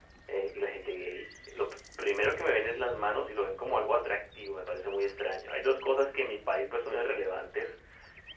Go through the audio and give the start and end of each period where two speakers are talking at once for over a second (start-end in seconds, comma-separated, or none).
none